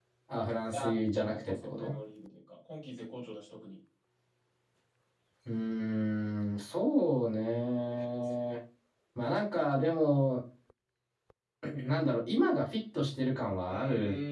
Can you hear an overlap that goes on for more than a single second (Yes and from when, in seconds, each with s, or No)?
Yes, from 0.7 s